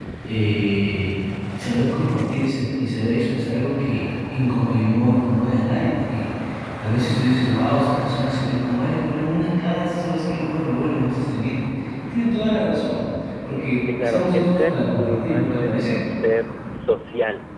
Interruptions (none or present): present